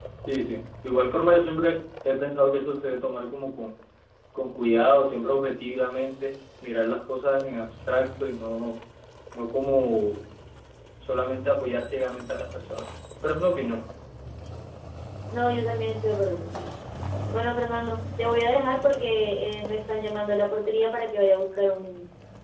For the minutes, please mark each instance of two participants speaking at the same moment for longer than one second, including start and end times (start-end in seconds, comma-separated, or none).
none